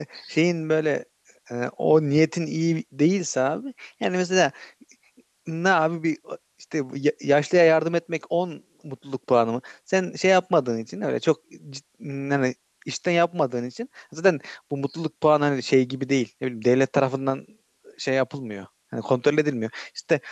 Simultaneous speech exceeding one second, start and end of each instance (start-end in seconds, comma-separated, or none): none